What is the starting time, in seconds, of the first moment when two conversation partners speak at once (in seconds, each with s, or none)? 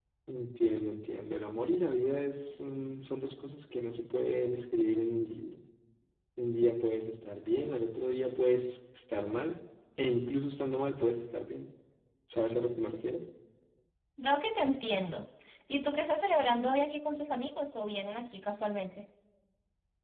none